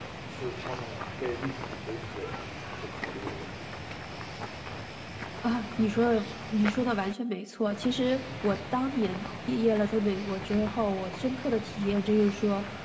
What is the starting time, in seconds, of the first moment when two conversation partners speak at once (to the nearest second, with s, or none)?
none